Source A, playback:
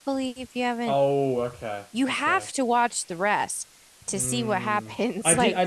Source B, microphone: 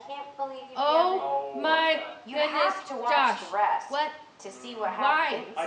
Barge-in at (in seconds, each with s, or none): 0.7 s